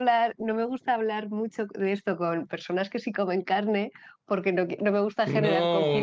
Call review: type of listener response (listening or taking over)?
taking over